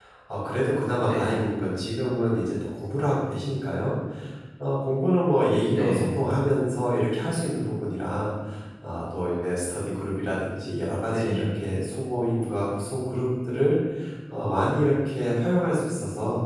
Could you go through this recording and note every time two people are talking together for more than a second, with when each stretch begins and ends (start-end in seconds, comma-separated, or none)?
none